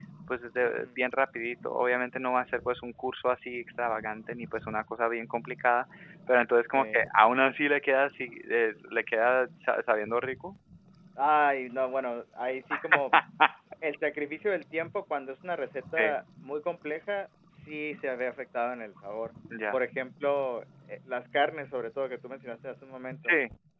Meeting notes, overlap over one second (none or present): none